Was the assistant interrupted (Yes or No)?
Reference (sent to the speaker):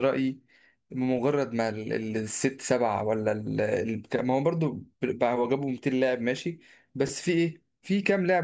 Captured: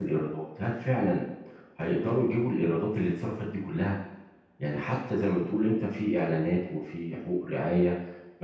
Yes